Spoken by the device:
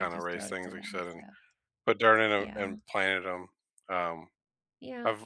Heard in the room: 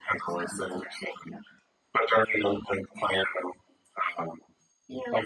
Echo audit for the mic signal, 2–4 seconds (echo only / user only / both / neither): echo only